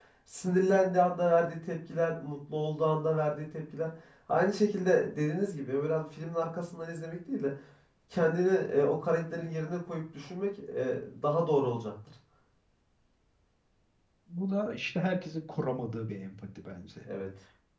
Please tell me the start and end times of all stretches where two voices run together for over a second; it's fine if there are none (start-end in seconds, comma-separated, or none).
none